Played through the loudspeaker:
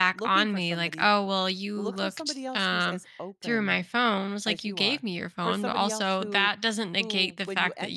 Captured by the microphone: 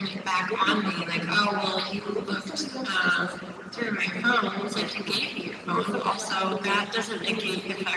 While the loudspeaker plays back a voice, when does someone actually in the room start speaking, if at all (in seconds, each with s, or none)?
none